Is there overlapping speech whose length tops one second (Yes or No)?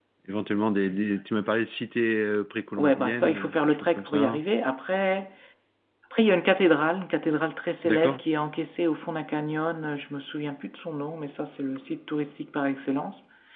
Yes